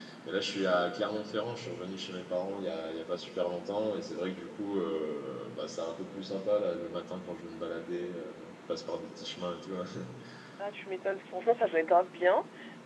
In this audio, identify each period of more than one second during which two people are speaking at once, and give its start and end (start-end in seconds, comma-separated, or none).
none